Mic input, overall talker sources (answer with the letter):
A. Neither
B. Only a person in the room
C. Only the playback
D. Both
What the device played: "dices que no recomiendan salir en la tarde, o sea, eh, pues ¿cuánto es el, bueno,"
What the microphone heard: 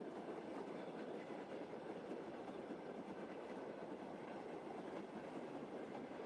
A